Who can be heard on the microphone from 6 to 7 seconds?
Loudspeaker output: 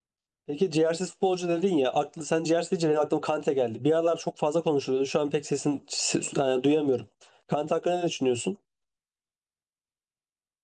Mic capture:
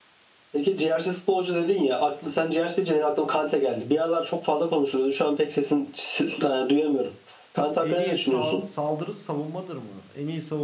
echo only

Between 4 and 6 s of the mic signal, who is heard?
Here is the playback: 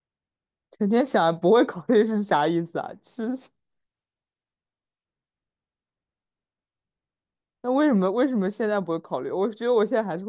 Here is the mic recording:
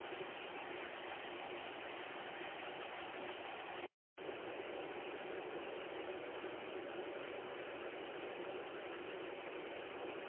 neither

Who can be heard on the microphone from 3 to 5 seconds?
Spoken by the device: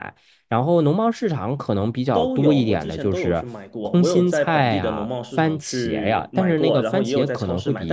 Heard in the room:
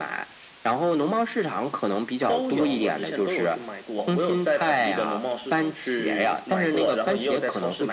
echo only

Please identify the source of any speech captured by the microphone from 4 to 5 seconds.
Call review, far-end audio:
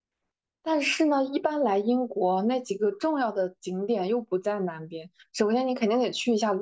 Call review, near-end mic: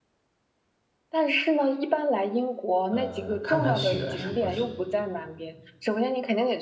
both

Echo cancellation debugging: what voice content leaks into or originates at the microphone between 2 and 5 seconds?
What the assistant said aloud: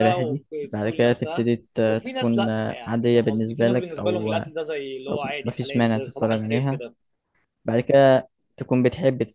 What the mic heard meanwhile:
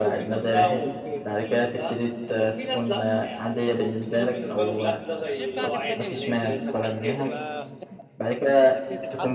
echo only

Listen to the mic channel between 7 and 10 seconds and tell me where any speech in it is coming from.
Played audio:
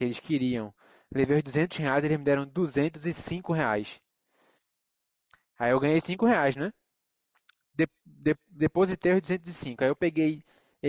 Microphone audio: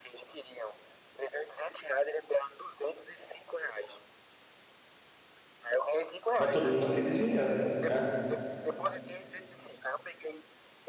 both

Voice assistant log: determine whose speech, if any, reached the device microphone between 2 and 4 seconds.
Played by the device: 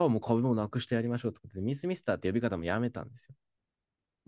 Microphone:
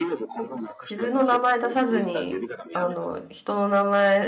both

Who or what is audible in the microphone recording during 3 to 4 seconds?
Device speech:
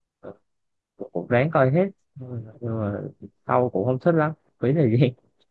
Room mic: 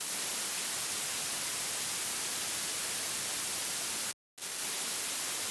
neither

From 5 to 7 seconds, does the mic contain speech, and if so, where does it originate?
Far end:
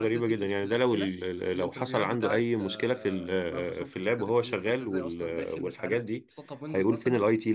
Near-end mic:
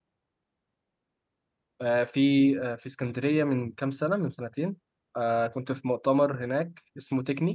user only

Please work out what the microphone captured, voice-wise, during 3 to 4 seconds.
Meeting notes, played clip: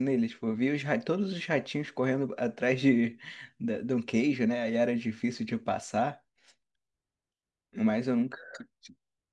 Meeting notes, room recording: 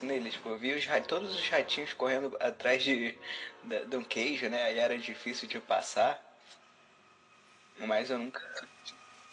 echo only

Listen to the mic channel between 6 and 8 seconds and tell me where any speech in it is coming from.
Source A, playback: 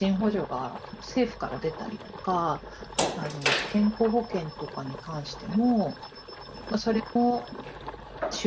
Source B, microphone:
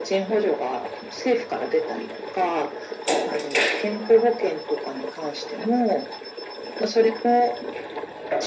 echo only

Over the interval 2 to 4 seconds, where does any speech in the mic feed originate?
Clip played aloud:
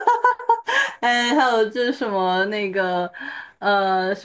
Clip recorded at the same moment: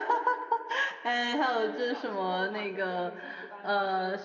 both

